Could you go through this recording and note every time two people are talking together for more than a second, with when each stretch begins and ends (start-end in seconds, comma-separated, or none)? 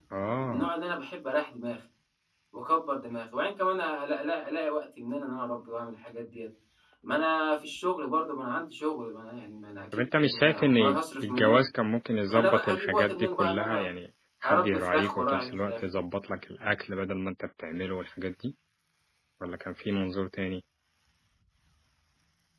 9.9-11.6, 12.3-13.9, 14.4-15.8